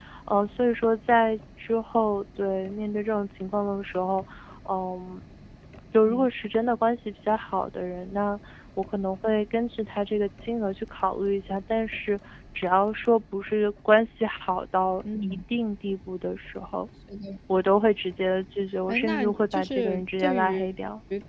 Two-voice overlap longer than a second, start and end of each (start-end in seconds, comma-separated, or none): 18.9-20.8